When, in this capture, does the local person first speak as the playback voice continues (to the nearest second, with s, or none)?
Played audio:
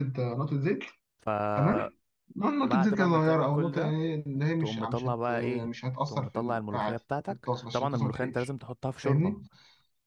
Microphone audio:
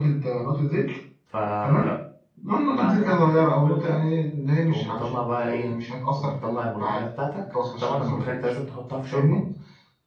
none